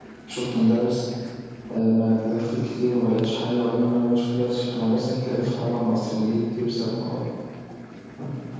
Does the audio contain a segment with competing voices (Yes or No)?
No